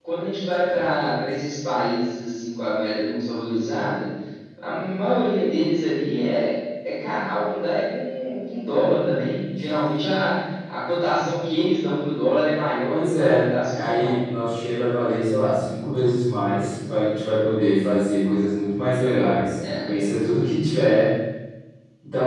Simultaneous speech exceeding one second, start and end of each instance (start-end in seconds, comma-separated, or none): 12.9-14.2